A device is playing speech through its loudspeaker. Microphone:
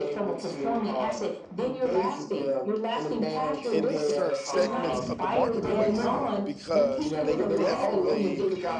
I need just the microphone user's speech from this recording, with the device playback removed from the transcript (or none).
in these certain segments of the marketplace because they definitely